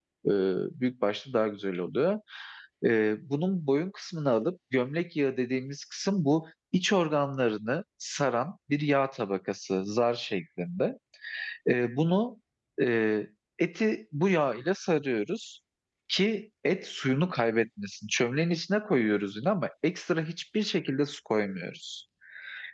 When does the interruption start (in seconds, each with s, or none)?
none